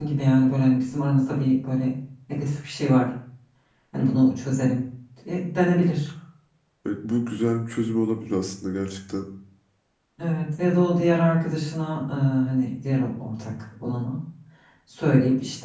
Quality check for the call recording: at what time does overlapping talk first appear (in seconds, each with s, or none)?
none